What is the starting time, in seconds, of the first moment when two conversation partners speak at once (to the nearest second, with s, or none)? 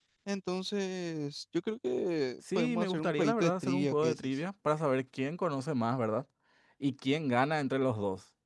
2 s